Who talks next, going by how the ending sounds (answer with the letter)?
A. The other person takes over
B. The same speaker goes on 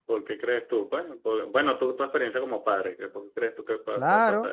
A